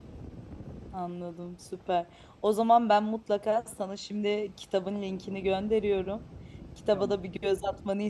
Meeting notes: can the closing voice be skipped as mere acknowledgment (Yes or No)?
Yes